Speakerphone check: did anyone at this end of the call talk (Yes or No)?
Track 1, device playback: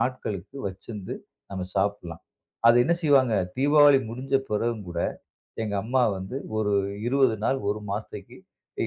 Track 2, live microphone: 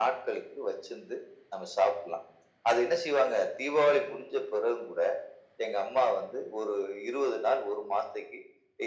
No